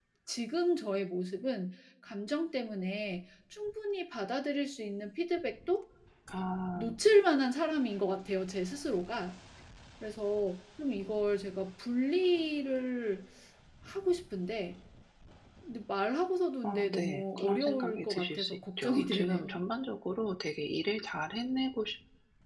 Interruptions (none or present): present